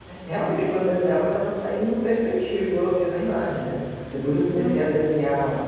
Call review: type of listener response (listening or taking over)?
listening